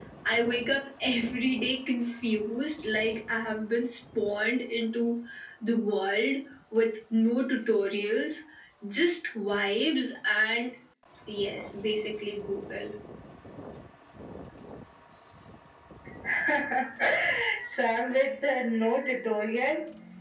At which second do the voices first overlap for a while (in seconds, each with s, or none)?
none